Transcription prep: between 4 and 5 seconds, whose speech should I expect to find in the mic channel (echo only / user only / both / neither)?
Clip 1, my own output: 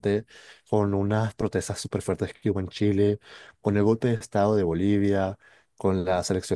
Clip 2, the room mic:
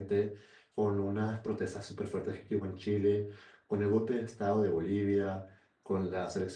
echo only